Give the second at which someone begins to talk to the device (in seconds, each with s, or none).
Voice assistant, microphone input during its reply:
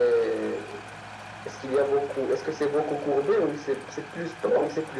none